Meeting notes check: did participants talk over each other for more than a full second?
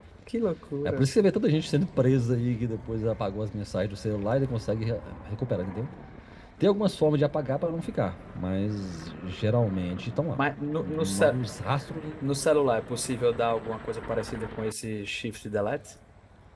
No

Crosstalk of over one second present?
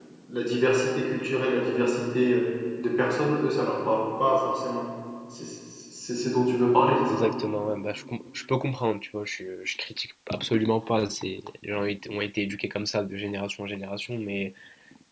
No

